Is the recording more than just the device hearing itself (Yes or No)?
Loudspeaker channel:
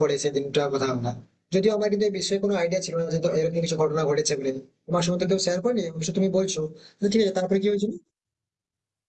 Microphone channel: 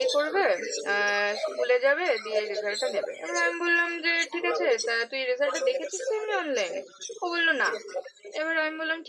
Yes